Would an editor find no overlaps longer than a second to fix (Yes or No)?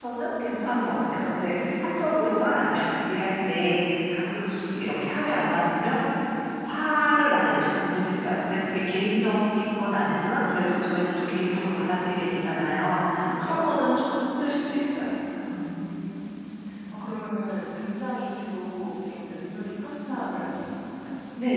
Yes